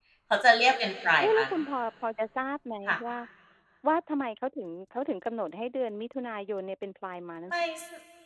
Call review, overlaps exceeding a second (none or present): none